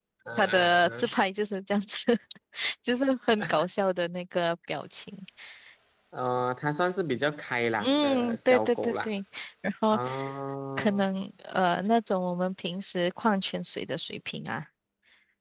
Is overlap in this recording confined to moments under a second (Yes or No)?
No